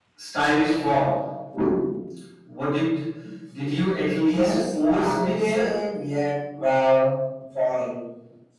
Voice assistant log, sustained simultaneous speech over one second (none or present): present